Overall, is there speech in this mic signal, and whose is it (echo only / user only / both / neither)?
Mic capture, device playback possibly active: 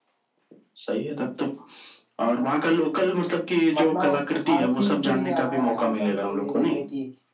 both